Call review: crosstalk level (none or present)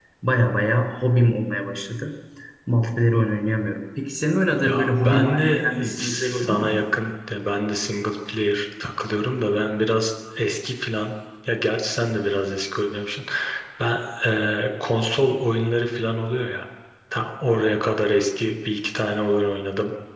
present